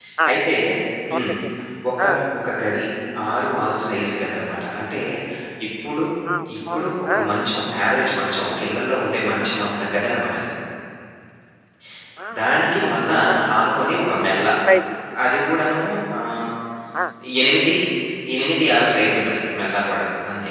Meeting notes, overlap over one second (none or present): none